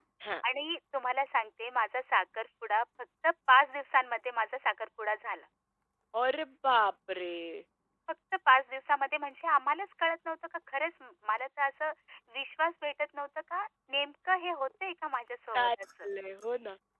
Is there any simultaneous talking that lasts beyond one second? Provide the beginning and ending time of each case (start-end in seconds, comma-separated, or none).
none